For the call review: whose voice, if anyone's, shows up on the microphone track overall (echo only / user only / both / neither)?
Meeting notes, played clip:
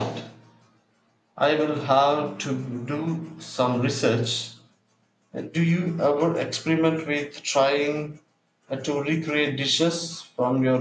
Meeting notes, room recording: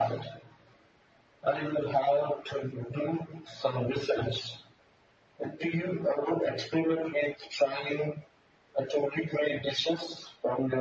echo only